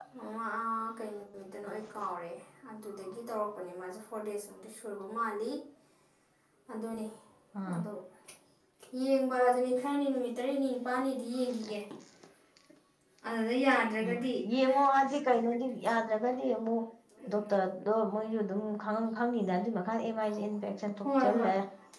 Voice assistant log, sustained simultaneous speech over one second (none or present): none